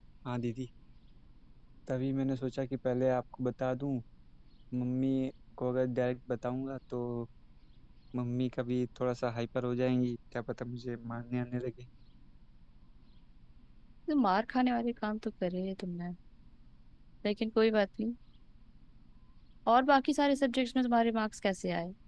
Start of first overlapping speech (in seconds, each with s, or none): none